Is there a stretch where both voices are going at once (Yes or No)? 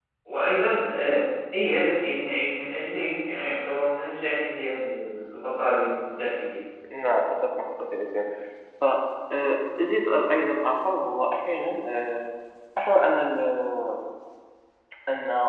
No